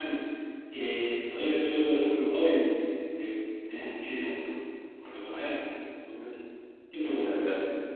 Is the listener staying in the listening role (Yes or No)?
No